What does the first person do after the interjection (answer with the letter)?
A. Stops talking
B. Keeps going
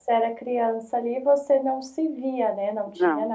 B